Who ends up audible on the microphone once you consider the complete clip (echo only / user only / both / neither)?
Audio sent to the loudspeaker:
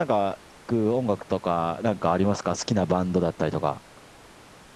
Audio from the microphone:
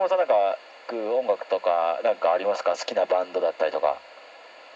echo only